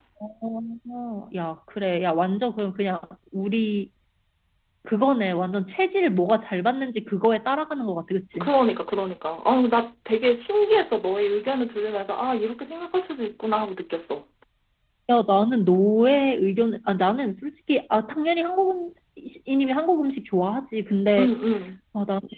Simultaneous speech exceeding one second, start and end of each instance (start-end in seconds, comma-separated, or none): none